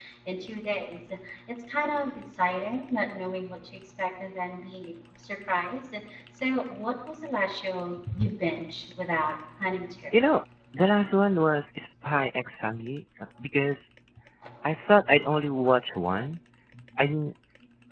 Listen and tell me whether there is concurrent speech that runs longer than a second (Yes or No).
No